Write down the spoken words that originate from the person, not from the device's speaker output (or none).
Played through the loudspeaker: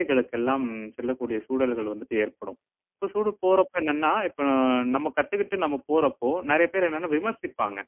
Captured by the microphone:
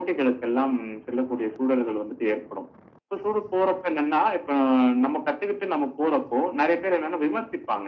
none